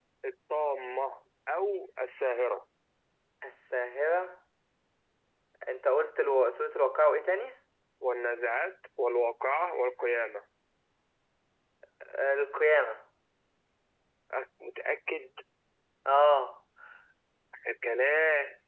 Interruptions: none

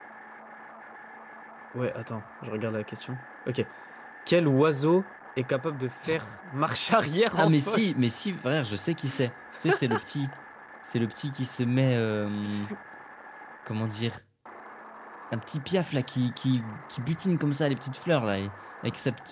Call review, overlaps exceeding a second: none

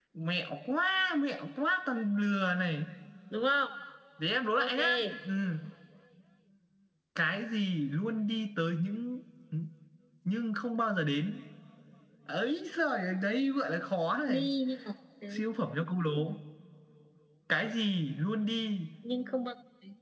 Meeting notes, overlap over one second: none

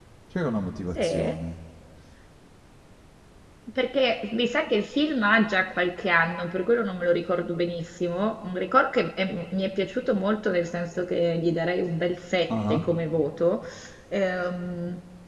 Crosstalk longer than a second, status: none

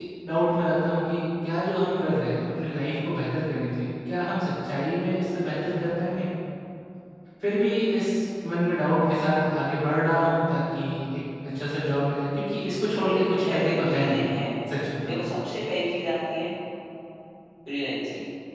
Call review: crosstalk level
present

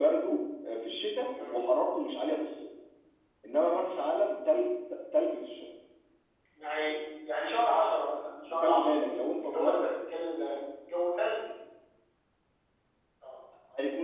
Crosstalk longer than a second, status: none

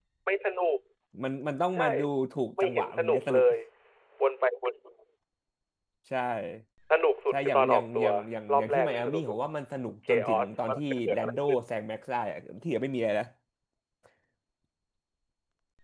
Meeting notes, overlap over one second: present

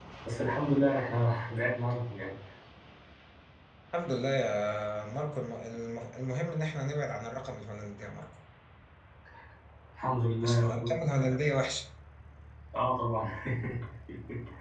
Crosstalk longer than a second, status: none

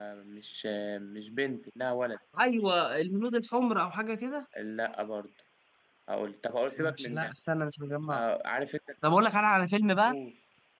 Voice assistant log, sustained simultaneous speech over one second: none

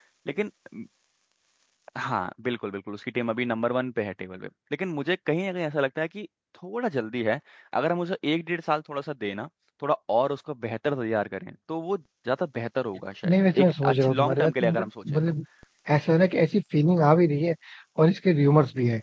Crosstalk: present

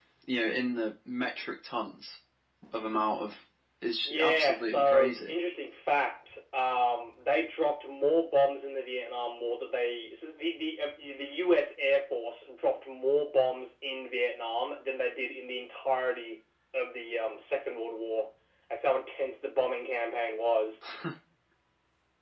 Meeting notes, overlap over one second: present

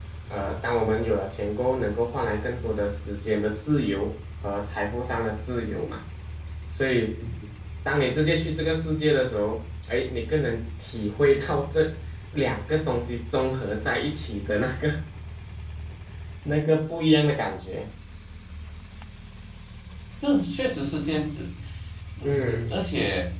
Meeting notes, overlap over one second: none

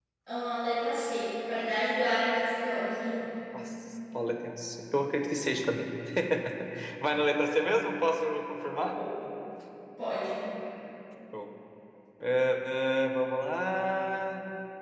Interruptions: none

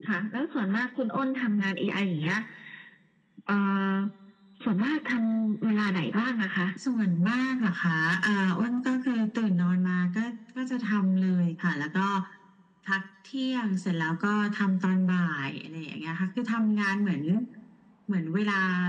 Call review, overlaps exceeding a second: none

